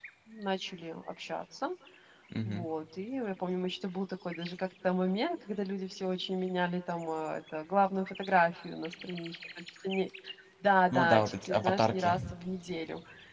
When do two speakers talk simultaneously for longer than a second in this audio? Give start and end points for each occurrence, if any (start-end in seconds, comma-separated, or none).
10.9-12.3